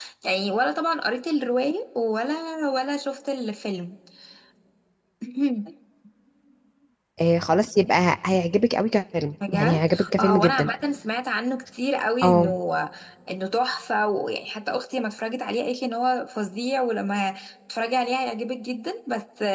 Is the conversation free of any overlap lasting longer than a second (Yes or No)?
No